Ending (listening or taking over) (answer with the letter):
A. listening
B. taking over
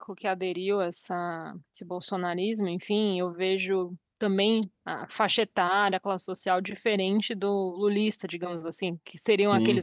A